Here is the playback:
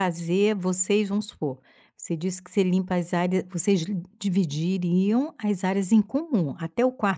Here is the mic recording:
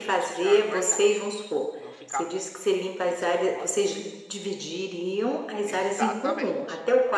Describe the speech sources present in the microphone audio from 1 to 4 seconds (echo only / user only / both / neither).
both